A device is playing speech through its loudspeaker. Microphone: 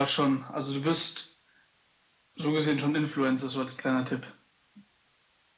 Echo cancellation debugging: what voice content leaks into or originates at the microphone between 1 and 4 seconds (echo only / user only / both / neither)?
echo only